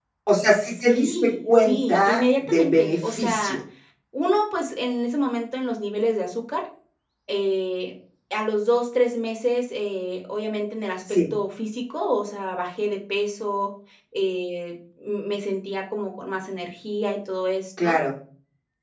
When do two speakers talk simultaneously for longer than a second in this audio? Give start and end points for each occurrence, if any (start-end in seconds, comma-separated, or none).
0.7-3.6